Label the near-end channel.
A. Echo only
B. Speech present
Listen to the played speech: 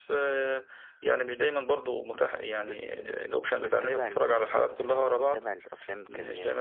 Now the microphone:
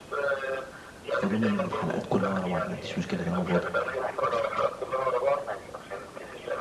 B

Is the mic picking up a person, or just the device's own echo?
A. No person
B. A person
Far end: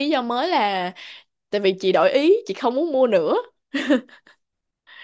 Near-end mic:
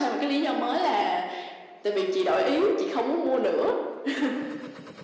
A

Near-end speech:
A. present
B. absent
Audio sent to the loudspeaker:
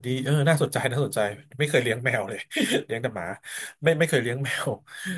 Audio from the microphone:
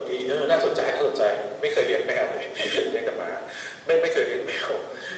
B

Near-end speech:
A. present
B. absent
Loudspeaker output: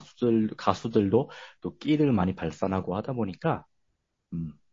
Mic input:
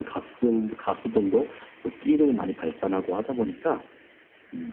B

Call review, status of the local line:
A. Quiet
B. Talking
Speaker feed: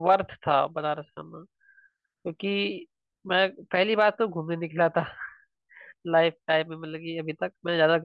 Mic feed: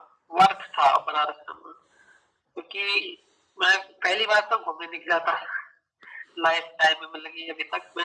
A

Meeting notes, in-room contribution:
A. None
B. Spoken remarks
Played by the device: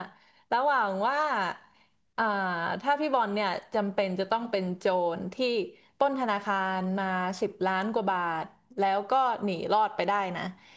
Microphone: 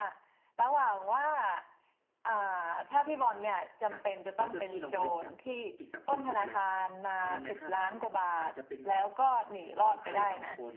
B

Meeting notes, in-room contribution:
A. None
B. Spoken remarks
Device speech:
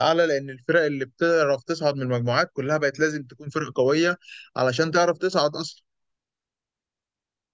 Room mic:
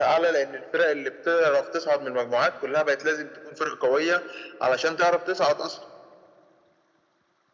A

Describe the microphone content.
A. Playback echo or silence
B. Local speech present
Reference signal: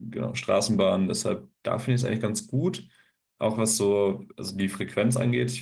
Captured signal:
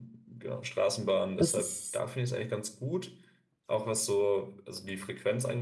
B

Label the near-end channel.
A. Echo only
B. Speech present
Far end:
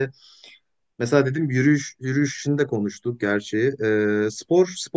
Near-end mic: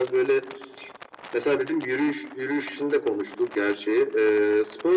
A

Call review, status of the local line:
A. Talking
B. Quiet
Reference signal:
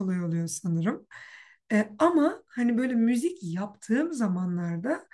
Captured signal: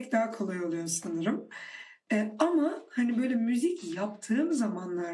B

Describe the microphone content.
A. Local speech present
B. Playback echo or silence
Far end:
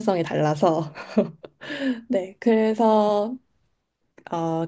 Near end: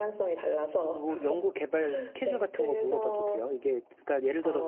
A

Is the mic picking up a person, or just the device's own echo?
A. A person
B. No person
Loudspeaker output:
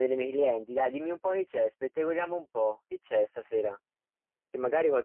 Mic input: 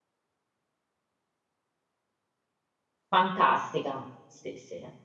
A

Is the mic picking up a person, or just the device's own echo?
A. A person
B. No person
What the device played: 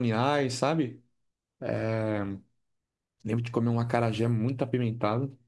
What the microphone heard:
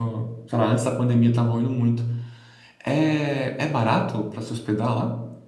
A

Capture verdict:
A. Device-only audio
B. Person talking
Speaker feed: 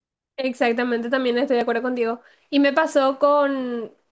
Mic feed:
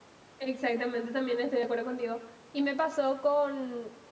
A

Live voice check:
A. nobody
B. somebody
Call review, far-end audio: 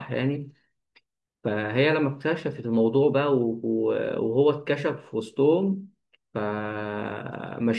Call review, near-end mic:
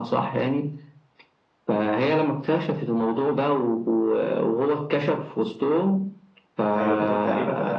B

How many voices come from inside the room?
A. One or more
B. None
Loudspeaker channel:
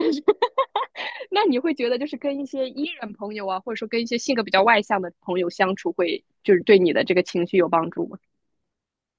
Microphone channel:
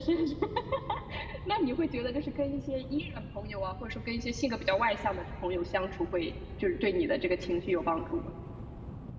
B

